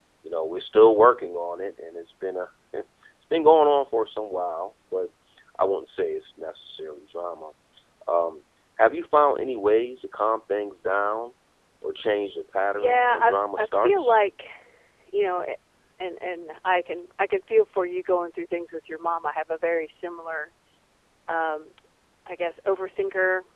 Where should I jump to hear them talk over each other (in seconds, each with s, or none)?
12.7 s